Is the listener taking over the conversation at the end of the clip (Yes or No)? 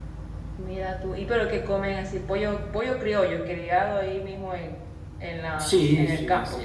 Yes